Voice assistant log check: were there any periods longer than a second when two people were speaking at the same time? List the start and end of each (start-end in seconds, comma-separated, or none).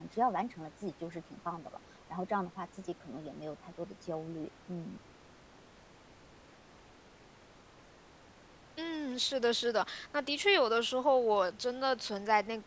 none